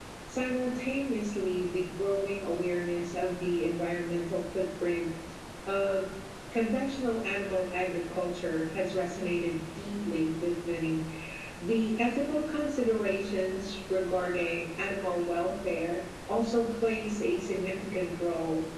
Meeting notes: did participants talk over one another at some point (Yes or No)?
No